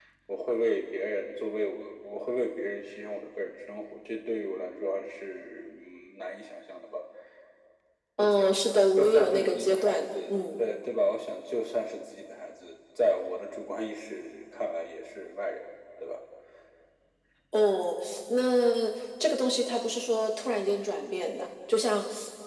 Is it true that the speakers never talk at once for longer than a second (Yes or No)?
No